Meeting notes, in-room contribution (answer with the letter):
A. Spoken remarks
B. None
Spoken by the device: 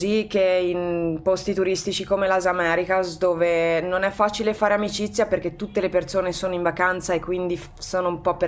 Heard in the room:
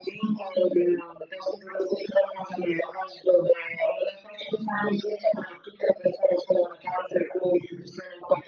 B